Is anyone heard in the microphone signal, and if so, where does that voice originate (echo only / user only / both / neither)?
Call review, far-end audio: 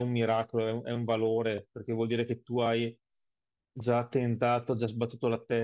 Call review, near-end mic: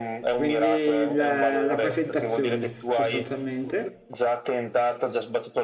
both